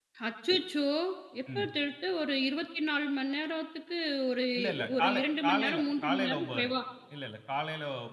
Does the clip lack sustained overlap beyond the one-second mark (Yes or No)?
No